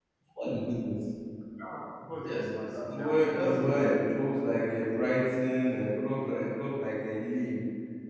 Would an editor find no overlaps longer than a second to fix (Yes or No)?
No